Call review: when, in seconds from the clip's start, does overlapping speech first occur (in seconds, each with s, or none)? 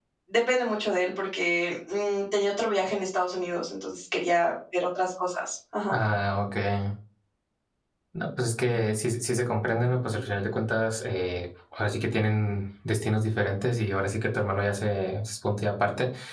none